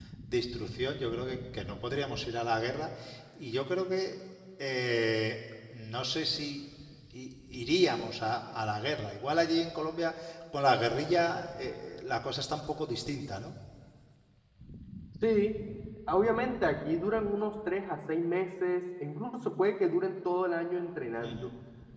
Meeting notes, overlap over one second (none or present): none